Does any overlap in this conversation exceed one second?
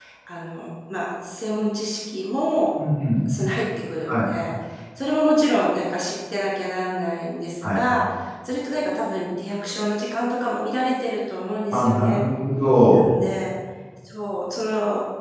No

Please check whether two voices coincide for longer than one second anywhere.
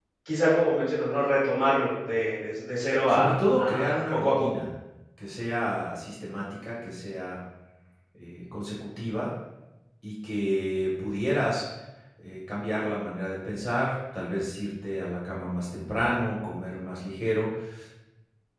Yes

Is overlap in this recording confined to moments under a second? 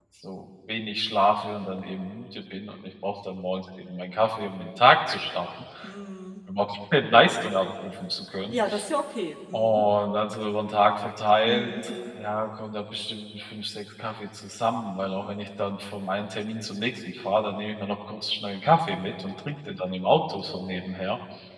Yes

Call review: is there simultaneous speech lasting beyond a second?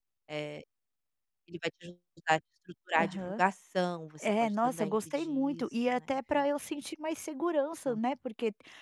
Yes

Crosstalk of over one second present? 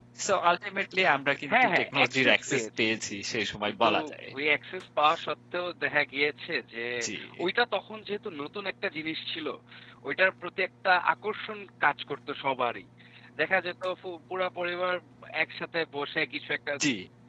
Yes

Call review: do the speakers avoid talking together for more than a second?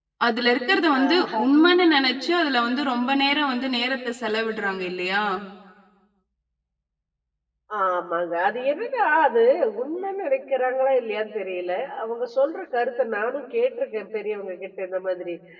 Yes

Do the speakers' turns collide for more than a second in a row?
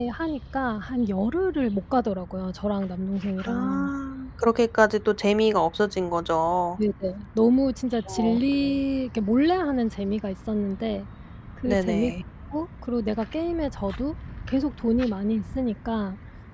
No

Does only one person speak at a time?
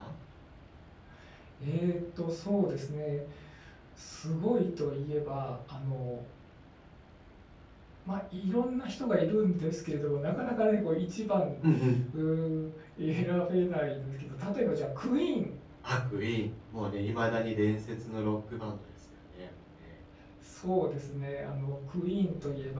Yes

